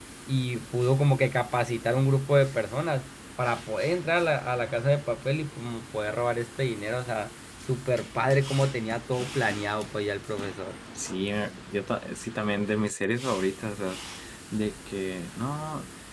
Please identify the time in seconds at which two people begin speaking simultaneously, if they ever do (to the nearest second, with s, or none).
none